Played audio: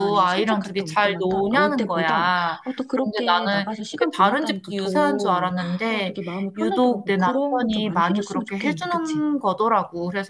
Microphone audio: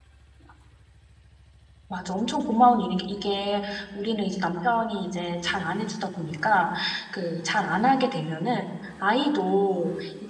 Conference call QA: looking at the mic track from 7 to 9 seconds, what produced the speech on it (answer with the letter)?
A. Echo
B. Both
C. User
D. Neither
C